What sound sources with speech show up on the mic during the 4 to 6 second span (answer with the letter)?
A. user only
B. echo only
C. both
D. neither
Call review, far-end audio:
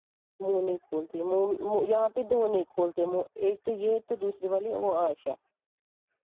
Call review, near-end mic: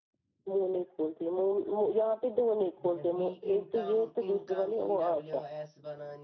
C